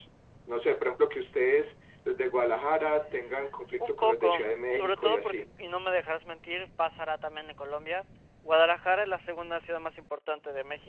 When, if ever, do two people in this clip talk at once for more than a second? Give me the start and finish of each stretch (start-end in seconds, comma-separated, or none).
3.8-5.5